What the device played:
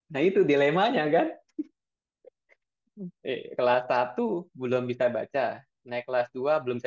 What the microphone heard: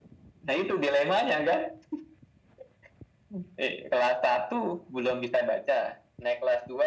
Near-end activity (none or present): none